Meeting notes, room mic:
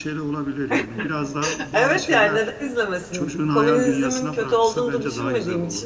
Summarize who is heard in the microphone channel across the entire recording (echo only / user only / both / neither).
both